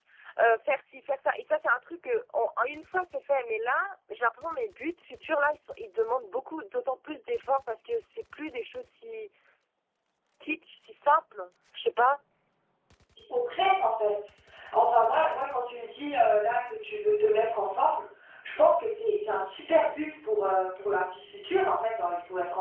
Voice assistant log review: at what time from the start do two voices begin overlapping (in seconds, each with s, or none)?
none